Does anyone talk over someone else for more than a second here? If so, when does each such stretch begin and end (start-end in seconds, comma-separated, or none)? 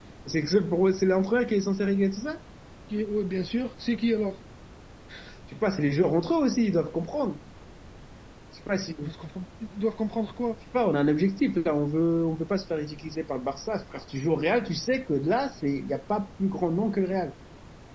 none